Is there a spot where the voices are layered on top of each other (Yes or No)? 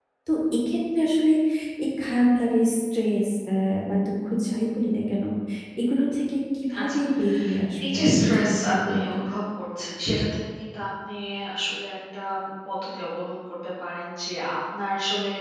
Yes